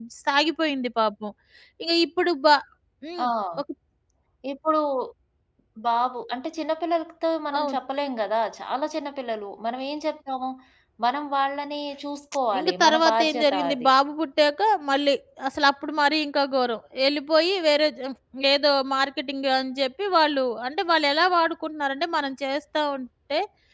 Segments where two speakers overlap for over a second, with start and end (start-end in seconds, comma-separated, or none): 12.6-13.9